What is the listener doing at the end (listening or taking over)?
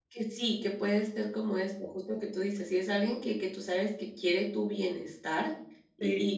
listening